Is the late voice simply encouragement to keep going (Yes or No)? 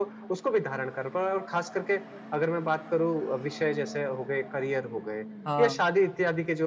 Yes